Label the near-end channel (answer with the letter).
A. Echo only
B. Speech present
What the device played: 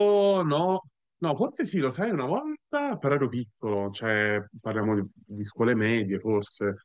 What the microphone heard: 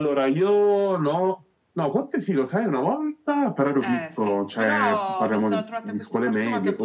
B